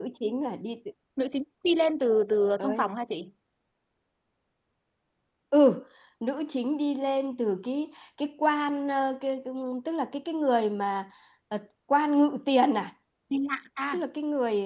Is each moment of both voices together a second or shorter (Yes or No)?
Yes